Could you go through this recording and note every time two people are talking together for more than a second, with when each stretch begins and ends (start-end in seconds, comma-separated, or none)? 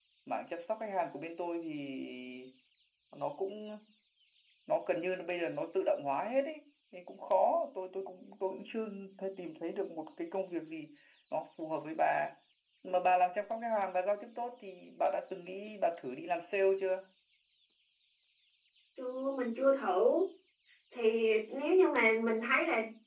none